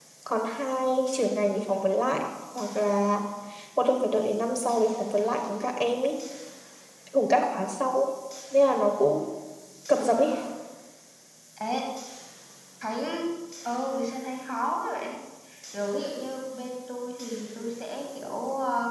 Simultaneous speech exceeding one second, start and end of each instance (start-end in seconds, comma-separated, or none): none